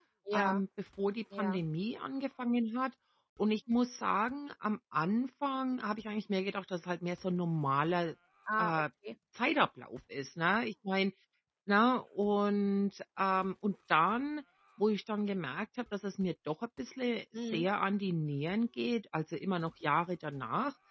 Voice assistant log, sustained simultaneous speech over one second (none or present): none